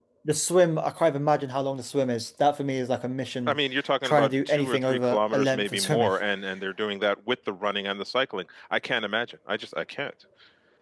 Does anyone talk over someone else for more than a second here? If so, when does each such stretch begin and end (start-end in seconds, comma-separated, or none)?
4.0-6.1